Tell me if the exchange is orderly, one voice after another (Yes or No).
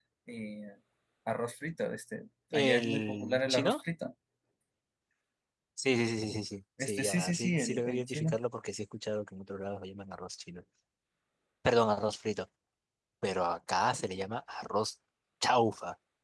No